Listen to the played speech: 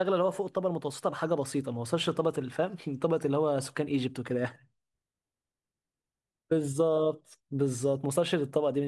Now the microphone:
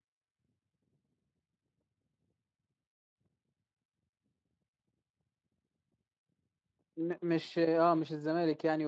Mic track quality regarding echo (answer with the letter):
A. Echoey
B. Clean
B